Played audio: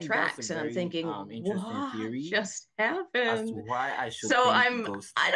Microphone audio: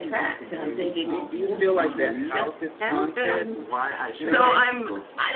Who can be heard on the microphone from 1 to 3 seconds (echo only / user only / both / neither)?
both